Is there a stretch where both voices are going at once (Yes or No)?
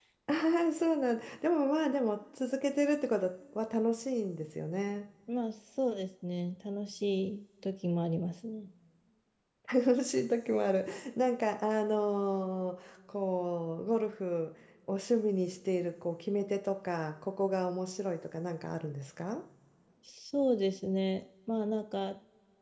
No